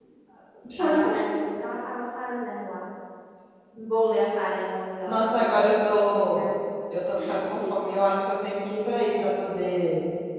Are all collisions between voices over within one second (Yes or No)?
No